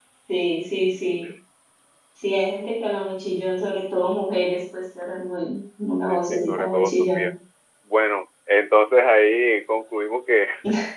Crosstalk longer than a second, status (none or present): present